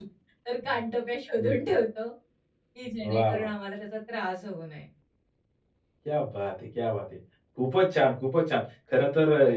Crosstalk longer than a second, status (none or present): none